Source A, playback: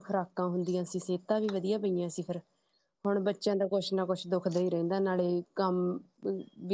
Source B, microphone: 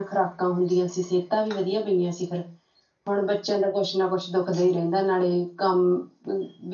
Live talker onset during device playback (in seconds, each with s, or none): none